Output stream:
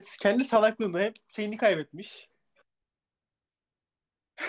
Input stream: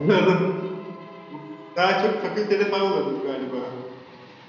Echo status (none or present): none